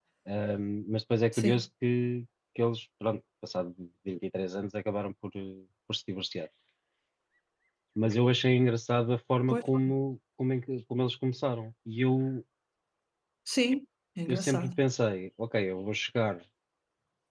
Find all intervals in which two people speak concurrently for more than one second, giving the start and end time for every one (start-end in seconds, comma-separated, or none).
none